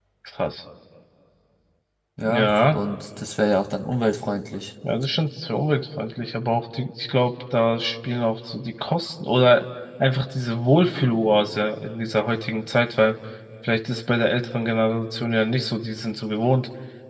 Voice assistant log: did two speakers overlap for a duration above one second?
No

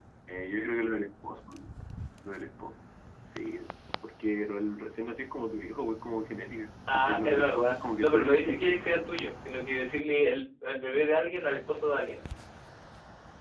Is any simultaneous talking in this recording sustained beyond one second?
Yes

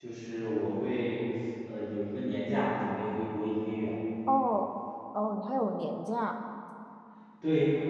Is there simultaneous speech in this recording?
No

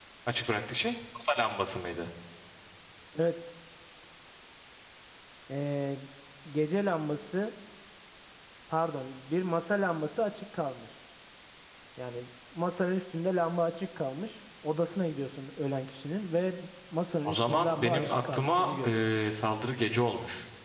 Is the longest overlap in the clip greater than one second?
Yes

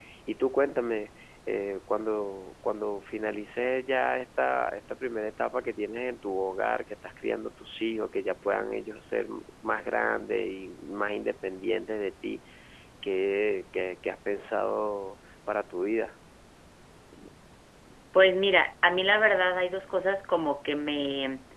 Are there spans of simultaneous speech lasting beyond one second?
No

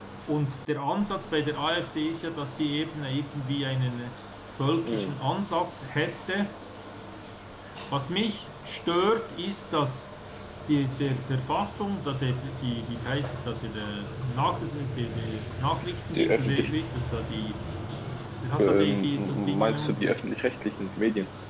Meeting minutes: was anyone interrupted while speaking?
Yes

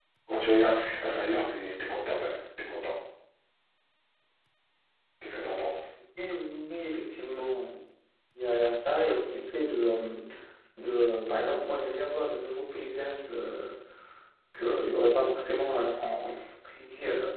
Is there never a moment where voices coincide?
Yes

